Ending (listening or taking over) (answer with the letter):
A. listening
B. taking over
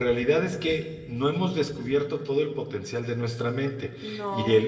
A